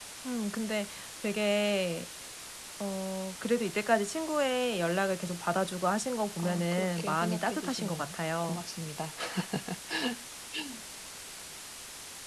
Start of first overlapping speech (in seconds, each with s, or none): 6.4 s